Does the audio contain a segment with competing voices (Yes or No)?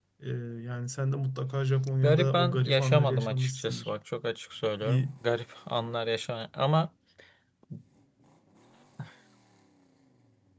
Yes